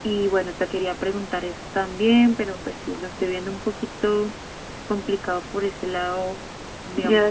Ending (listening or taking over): taking over